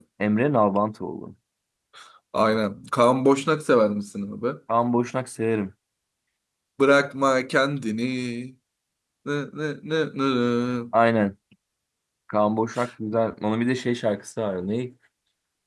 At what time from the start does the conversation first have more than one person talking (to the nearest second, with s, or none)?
none